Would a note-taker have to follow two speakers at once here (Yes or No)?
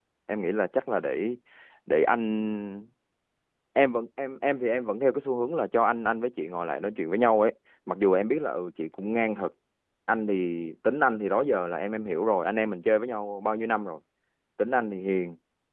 No